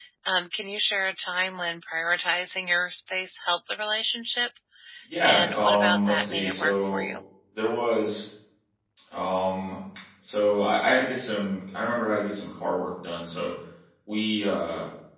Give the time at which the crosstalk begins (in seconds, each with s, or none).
5.2 s